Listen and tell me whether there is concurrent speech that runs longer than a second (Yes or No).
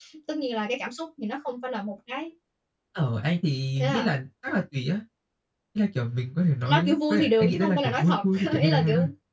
Yes